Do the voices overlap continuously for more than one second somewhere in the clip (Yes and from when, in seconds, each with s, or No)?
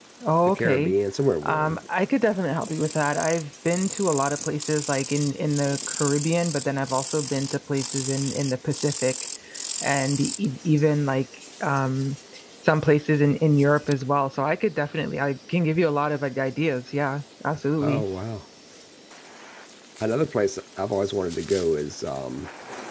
No